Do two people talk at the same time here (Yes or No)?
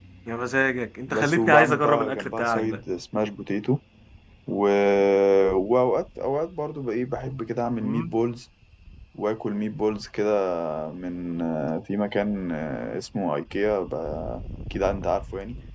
Yes